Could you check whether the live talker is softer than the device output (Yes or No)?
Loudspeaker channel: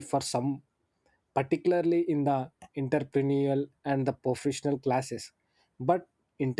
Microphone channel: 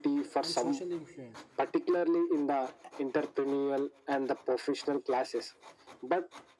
Yes